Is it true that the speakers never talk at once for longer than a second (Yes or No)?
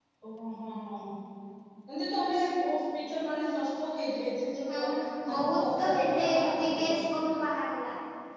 No